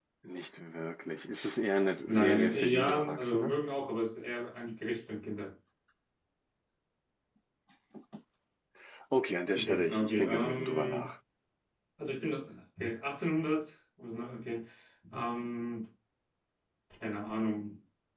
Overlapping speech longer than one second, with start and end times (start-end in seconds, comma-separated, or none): 2.0-3.5, 9.5-11.1